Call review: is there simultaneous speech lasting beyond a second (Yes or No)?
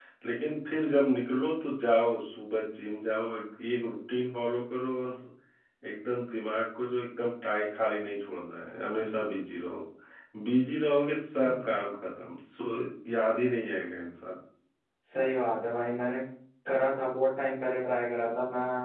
No